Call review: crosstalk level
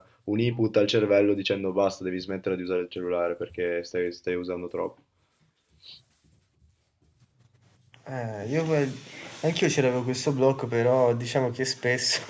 none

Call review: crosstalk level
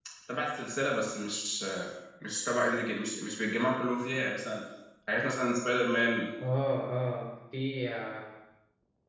none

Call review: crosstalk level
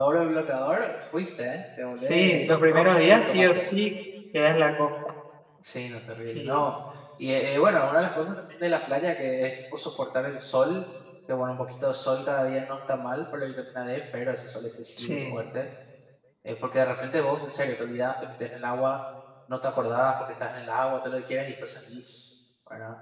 present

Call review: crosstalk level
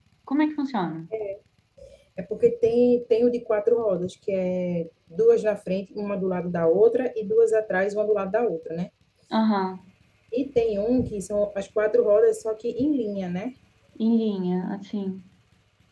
none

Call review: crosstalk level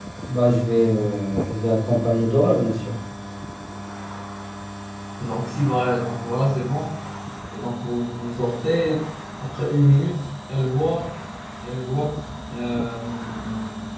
none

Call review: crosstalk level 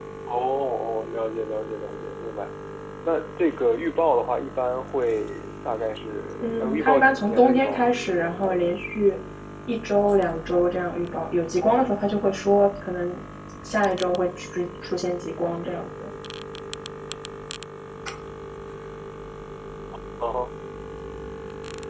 present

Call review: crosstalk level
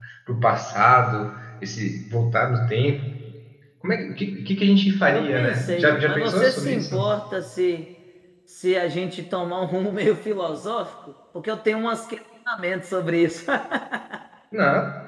present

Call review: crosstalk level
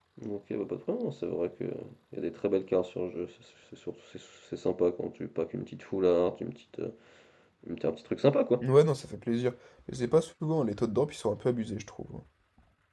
none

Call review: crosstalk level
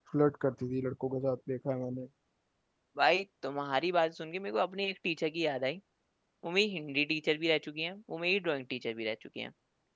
none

